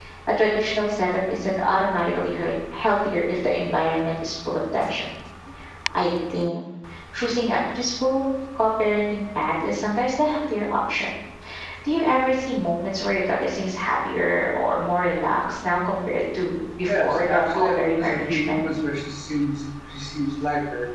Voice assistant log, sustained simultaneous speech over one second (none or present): present